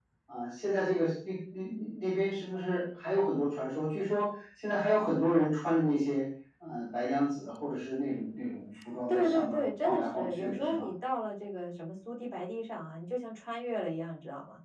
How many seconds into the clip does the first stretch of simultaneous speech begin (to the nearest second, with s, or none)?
9 s